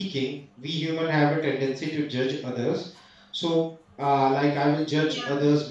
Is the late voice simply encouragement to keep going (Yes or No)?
Yes